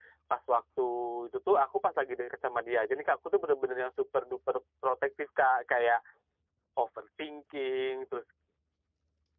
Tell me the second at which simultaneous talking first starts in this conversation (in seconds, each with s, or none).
none